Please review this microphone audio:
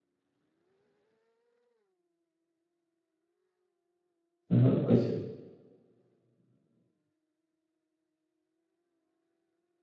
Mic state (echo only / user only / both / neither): user only